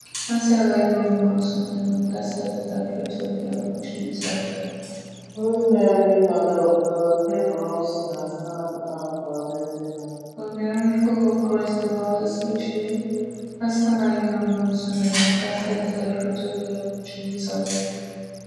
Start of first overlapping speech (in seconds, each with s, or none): none